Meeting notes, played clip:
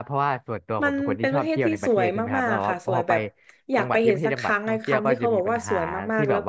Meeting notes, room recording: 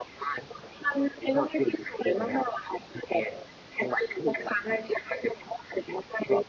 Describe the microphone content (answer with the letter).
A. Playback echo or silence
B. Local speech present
A